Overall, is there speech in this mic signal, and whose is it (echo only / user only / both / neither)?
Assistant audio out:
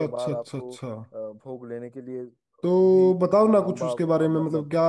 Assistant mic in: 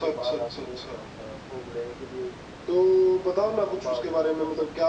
echo only